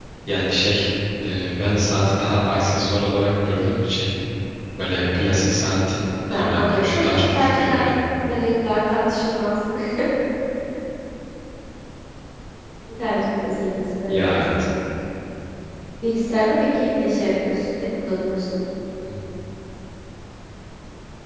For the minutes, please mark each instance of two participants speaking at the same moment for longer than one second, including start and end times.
6.3-7.8

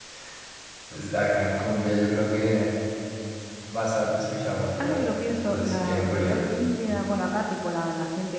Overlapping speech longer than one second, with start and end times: 4.8-6.5

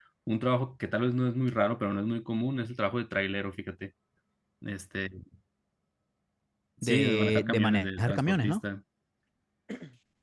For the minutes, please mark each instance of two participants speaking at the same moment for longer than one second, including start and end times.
6.8-8.6

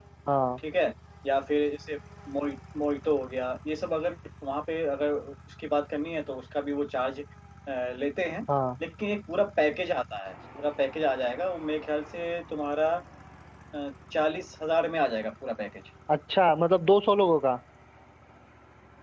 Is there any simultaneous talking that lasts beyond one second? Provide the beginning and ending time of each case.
none

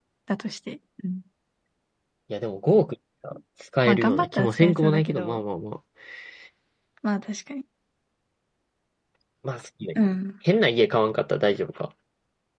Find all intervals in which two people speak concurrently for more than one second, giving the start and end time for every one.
3.9-5.4

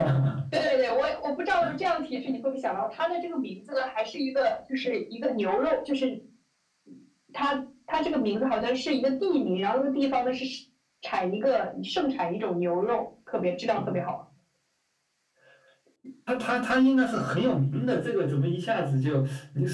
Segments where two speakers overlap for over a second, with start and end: none

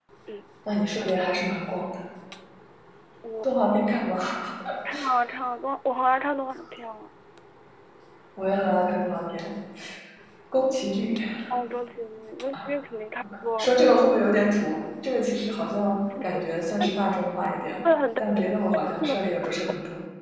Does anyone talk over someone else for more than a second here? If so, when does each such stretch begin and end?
none

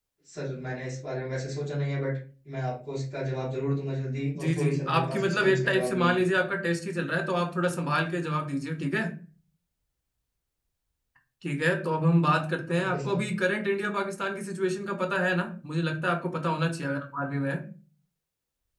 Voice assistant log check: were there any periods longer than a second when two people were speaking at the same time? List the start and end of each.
4.4-6.3

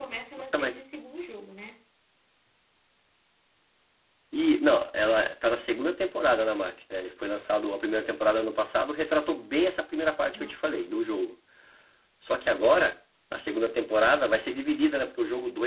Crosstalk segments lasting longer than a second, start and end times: none

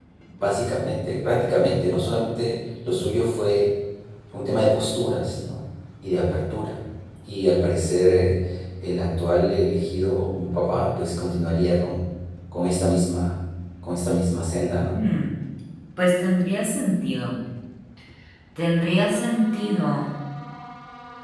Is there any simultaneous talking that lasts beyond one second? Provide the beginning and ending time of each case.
none

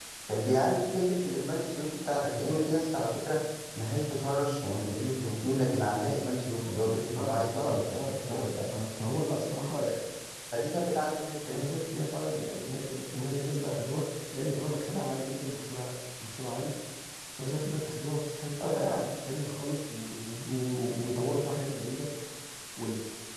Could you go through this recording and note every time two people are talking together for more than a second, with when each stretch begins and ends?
6.6-8.6

